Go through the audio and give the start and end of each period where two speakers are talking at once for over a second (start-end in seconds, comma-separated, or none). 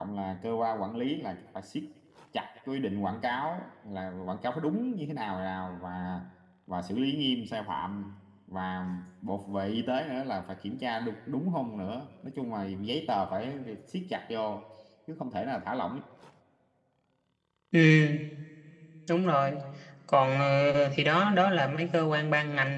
none